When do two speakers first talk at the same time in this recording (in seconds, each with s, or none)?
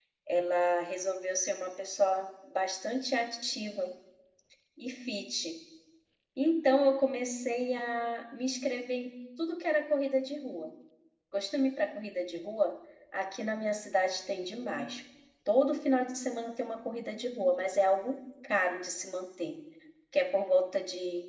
none